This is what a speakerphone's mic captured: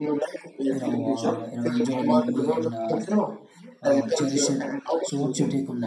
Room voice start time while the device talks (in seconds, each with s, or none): 0.7 s